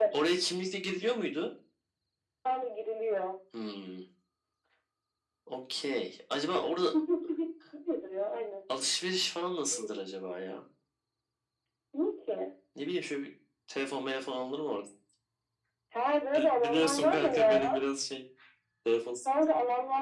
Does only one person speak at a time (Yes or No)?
No